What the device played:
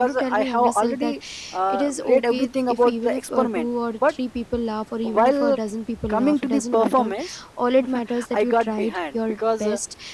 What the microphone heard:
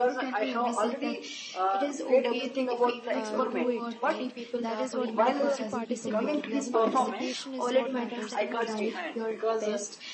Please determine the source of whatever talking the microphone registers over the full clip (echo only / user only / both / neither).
both